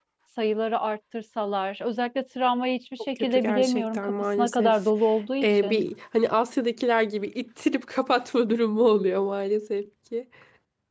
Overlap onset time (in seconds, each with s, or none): 3.2 s